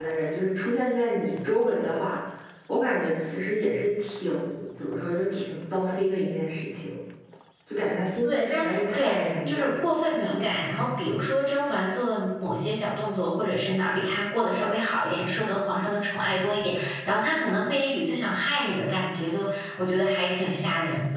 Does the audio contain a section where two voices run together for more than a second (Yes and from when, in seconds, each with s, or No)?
Yes, from 8.2 s